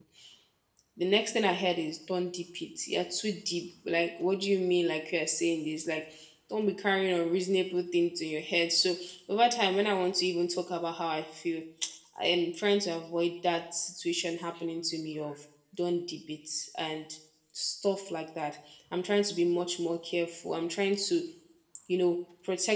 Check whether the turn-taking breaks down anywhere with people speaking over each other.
No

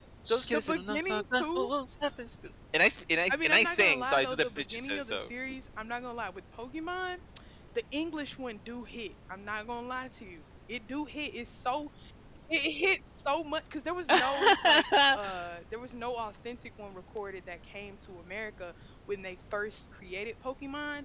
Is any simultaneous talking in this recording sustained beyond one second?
Yes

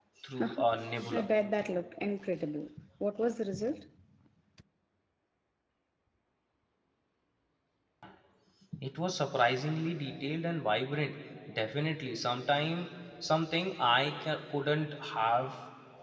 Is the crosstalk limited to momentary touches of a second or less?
Yes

